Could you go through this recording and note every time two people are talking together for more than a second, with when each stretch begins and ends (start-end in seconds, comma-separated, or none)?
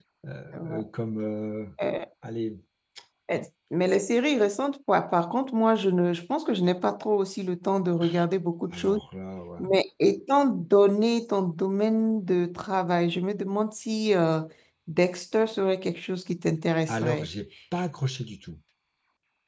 none